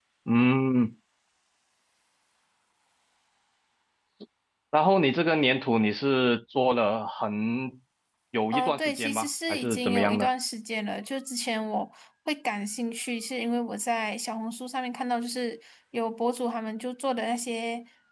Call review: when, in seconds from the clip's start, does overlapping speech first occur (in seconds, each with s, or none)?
8.5 s